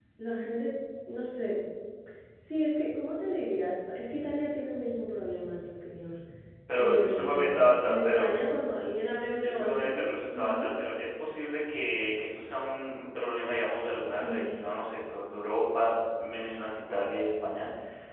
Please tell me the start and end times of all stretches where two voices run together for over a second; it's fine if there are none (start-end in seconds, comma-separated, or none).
6.8-8.3, 9.4-10.7